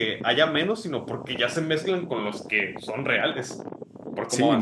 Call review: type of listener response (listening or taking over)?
taking over